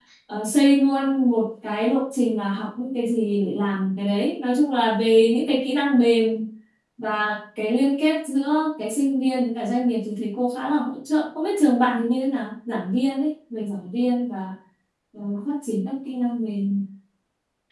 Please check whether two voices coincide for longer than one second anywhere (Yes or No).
No